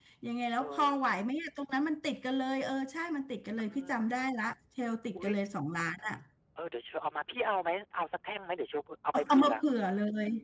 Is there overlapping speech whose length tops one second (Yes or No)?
No